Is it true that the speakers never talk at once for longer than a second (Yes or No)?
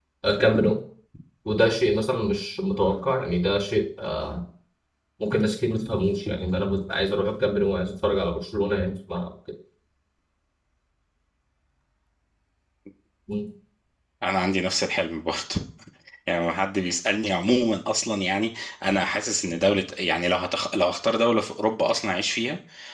Yes